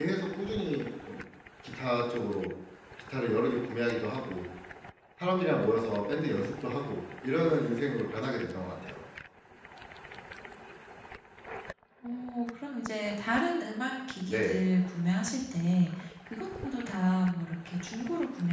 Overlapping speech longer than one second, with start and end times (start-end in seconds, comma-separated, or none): none